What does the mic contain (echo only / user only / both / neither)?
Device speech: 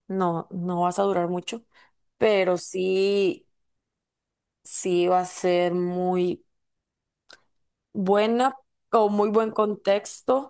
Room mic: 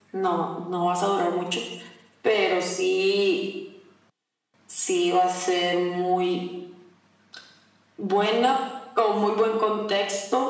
echo only